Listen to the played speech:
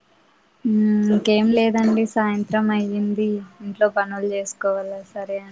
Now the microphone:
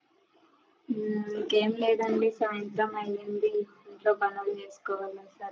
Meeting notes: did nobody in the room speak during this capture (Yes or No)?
Yes